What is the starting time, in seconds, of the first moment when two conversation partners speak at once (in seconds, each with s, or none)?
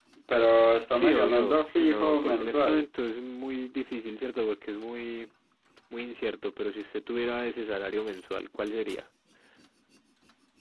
0.9 s